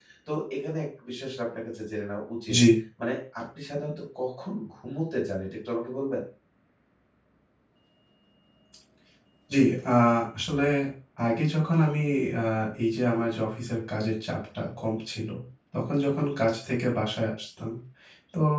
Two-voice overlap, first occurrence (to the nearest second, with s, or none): none